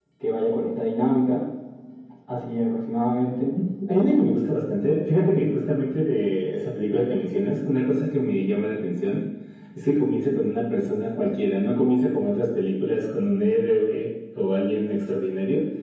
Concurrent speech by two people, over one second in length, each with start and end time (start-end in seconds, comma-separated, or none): none